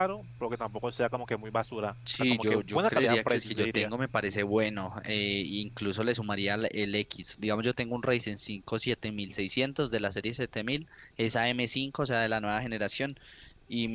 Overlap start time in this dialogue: 2 s

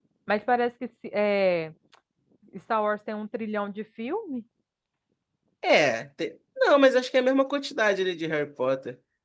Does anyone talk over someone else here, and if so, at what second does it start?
none

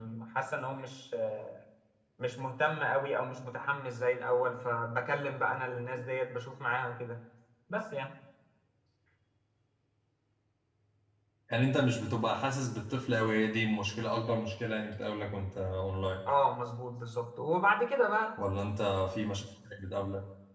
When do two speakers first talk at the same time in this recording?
none

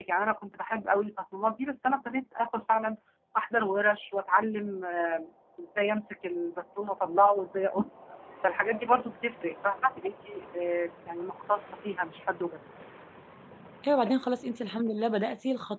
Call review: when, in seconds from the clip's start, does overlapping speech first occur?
none

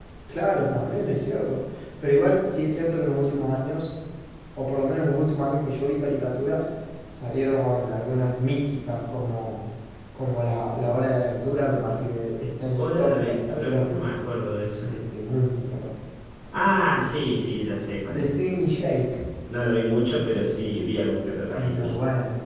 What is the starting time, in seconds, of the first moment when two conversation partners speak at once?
13 s

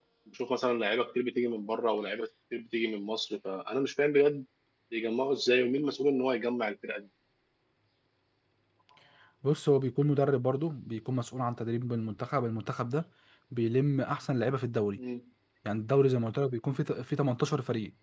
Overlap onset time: none

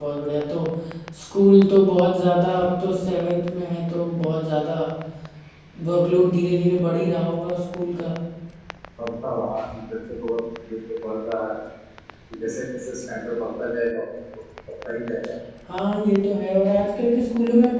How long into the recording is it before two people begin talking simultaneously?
none

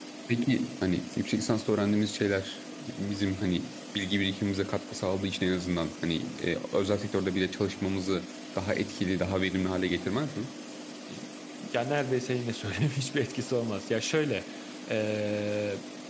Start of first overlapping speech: none

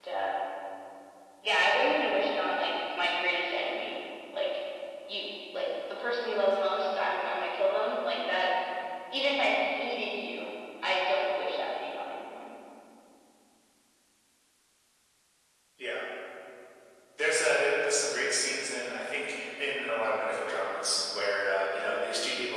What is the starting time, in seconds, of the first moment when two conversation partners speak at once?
none

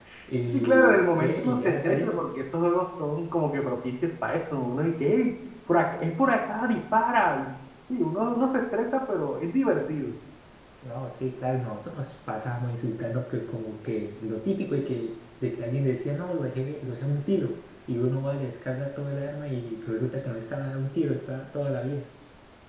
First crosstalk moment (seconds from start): 1 s

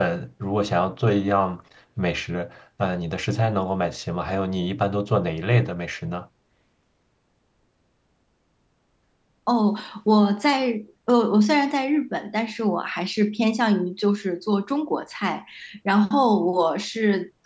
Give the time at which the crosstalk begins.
none

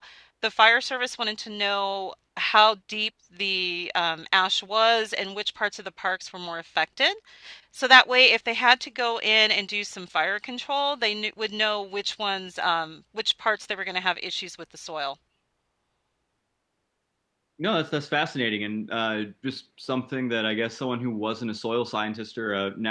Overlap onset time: none

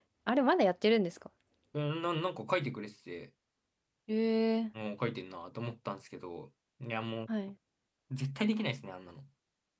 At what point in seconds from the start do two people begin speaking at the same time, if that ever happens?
none

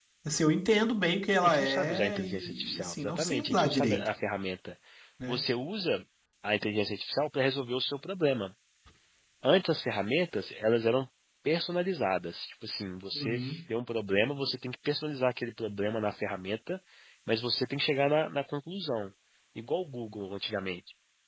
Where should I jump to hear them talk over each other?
1 s

